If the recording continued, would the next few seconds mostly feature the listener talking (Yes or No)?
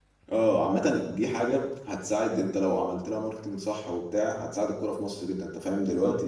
Yes